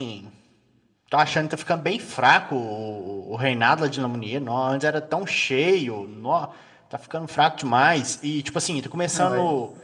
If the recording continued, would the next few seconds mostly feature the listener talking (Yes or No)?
No